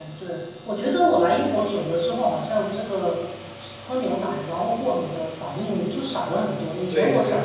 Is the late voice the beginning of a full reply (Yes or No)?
No